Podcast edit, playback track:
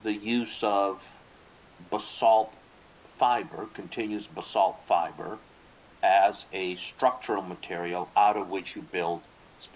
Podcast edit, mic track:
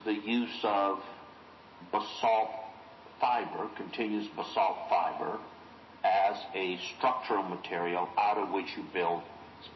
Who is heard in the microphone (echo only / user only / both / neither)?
echo only